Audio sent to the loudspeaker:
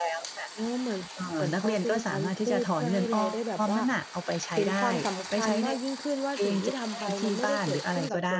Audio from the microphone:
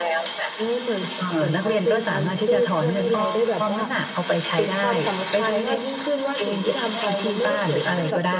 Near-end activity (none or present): none